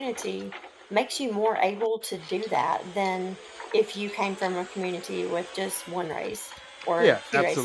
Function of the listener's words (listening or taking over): taking over